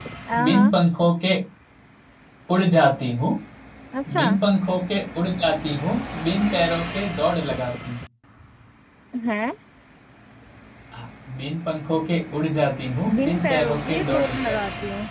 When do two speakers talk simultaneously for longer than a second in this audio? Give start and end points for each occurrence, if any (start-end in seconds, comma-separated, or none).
13.2-14.6